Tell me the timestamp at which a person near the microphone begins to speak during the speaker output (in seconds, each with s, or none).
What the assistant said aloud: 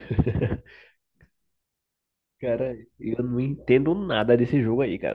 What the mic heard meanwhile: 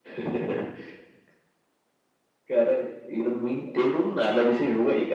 none